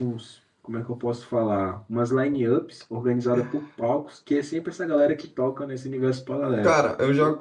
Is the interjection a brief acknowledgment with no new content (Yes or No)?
No